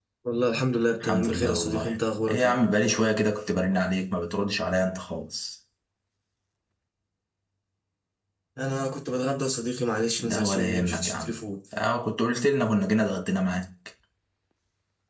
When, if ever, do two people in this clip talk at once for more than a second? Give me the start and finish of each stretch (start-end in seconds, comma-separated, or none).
1.0-2.6, 10.2-11.4